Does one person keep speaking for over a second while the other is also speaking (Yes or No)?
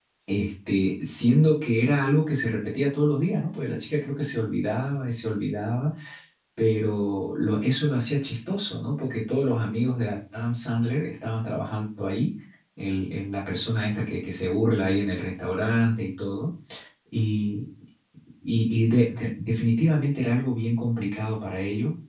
No